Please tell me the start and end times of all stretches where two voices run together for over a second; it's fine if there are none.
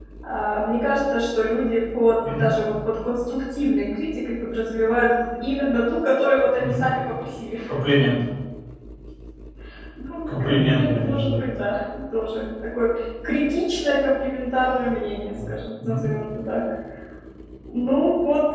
10.3-11.5

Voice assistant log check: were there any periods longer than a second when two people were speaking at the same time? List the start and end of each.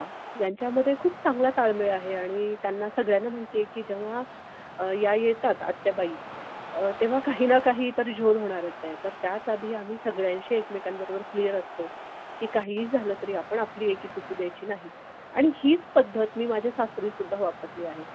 none

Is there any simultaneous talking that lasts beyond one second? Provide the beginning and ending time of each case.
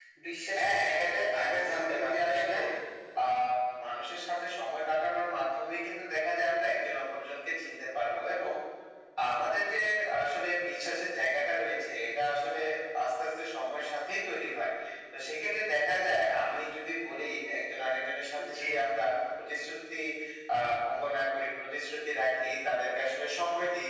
0.6-2.6

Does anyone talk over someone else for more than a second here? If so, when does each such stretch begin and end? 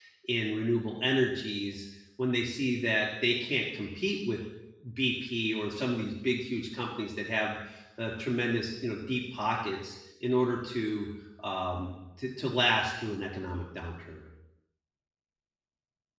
none

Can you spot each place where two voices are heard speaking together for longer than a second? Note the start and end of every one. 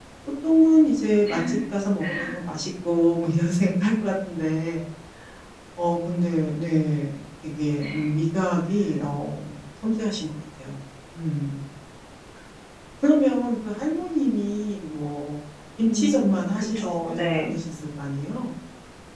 15.9-17.5

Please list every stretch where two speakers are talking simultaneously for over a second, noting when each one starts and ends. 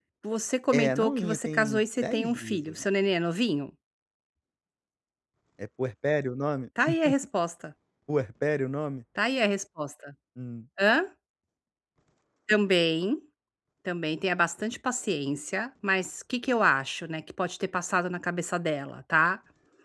0.7-2.8

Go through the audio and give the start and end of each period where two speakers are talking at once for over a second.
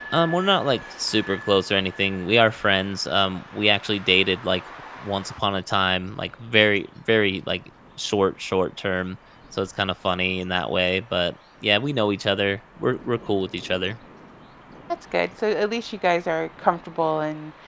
none

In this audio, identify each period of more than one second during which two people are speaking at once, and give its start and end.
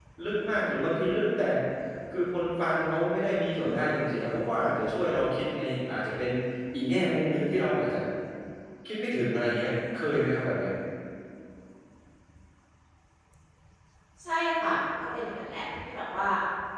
none

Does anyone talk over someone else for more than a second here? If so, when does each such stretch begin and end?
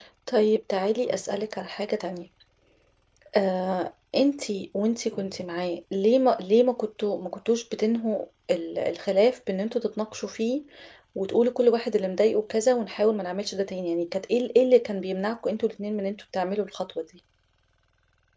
none

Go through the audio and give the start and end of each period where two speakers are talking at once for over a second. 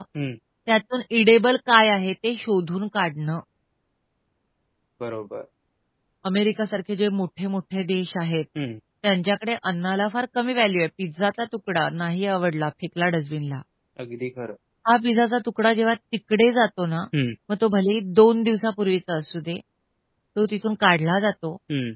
none

